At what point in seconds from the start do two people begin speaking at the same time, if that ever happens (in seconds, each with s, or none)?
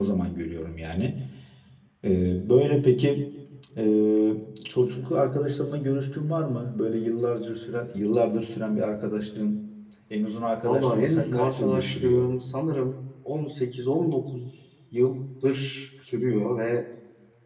10.6 s